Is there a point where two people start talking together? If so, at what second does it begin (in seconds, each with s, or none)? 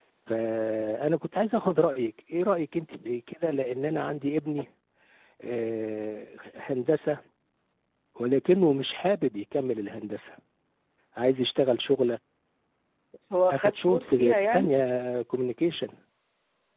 13.5 s